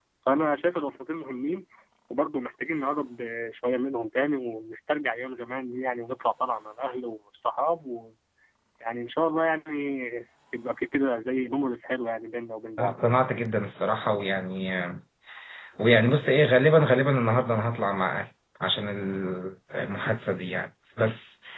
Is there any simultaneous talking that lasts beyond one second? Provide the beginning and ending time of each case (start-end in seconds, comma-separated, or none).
none